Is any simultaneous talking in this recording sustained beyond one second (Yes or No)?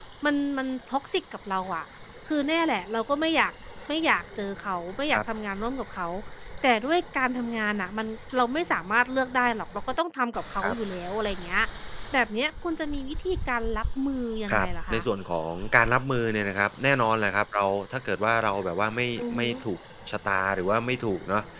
No